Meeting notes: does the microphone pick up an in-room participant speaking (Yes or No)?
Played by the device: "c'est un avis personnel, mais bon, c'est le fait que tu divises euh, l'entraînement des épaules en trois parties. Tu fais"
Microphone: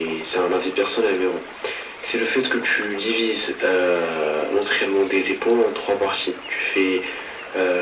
No